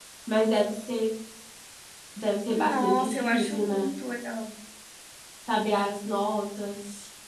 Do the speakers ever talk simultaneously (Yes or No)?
Yes